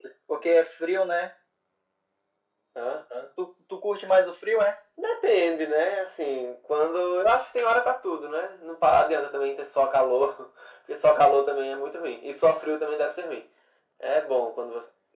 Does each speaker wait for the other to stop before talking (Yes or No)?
Yes